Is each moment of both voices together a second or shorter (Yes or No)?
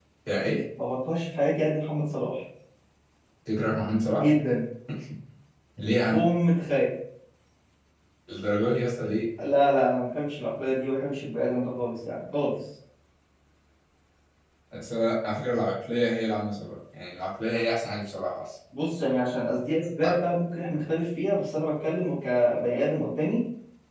Yes